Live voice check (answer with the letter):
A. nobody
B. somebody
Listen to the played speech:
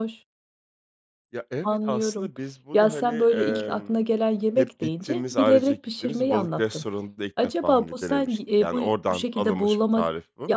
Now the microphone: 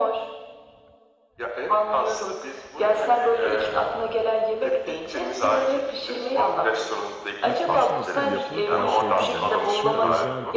B